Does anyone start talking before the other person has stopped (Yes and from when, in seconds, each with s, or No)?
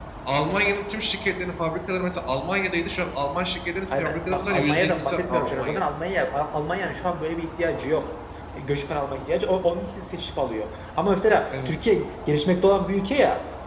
Yes, from 3.9 s